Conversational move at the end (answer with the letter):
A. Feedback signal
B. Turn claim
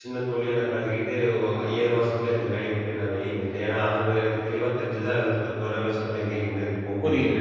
B